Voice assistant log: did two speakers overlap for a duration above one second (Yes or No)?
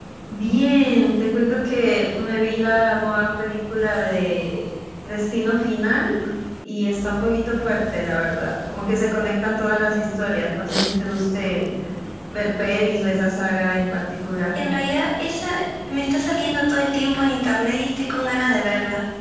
No